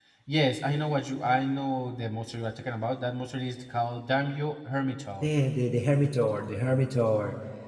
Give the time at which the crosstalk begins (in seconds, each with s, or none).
none